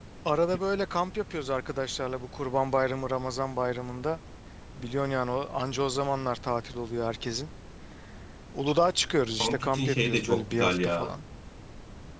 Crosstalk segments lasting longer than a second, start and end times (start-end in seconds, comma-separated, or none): 9.4-11.1